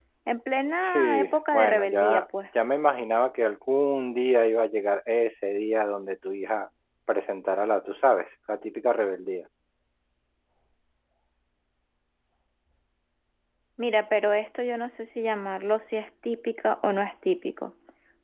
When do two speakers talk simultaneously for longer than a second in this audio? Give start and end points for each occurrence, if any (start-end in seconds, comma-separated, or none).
0.8-2.2